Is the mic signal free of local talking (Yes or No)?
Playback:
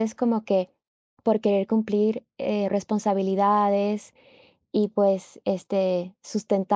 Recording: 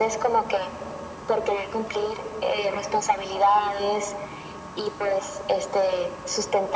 Yes